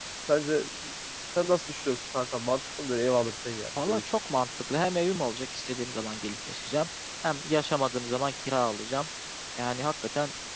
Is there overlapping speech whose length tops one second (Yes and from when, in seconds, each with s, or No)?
No